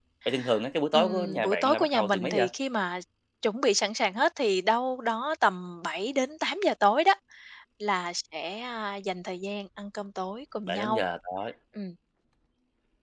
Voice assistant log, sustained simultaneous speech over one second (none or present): present